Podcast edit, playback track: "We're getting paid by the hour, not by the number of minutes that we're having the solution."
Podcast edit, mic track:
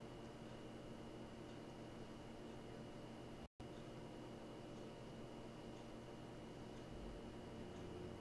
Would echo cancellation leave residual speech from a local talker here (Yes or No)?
No